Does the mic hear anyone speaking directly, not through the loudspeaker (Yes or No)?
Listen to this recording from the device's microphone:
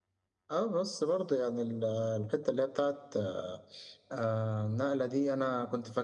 No